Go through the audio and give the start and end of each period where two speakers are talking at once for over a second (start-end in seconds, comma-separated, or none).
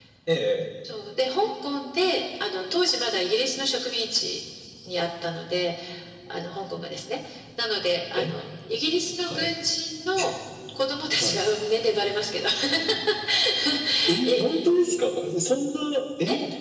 none